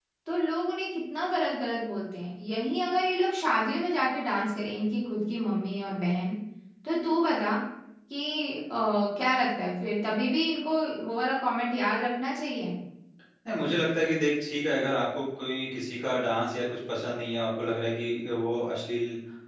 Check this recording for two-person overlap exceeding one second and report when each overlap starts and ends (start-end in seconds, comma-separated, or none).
none